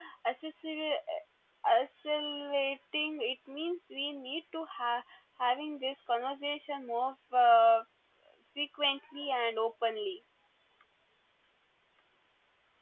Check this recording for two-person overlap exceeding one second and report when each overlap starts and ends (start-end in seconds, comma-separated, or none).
none